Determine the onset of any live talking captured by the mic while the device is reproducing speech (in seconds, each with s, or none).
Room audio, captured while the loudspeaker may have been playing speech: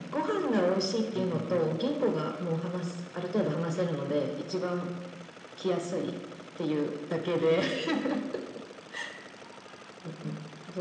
1.2 s